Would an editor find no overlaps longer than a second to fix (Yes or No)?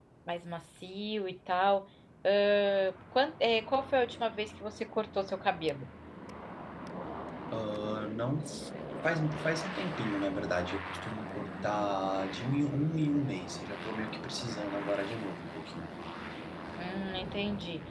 Yes